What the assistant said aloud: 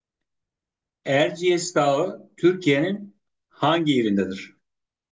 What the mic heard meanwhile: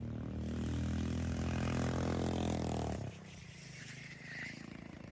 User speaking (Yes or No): No